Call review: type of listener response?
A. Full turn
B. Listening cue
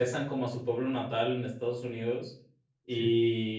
B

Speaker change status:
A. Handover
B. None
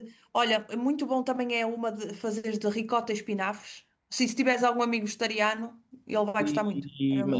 A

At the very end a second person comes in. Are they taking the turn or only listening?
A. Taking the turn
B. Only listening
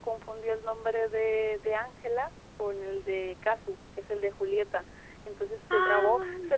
B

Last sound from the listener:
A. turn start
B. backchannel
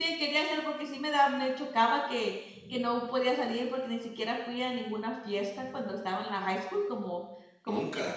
B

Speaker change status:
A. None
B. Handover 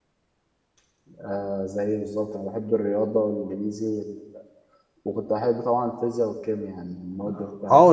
B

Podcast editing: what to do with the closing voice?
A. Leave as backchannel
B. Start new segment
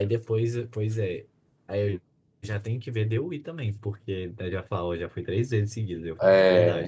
B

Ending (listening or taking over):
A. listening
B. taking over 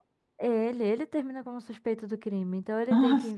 A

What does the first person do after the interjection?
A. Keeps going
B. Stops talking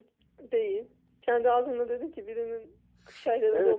B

